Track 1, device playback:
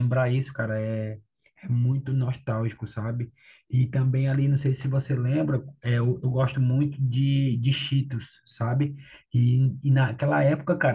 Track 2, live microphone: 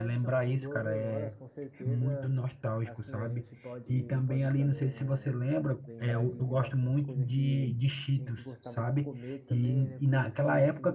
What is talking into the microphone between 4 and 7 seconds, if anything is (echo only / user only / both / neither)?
both